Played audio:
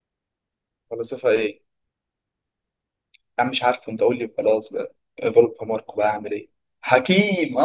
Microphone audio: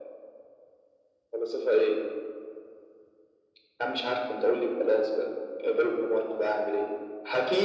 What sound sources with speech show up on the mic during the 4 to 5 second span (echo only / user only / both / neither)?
echo only